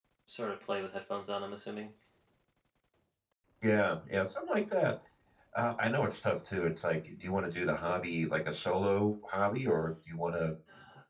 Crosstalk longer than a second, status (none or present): none